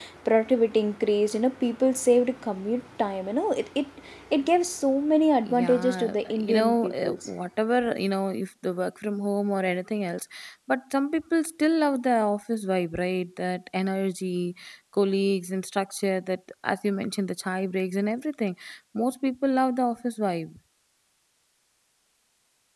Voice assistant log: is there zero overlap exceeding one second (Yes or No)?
No